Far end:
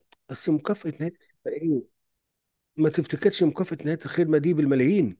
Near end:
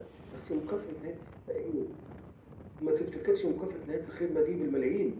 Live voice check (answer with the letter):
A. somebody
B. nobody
B